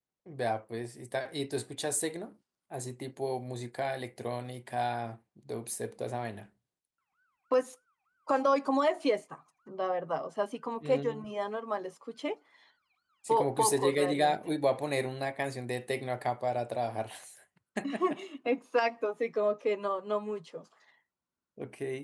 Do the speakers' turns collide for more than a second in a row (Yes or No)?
Yes